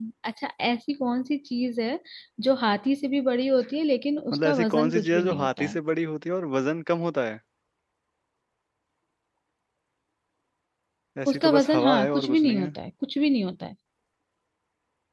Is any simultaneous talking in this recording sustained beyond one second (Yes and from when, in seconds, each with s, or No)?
Yes, from 4.3 s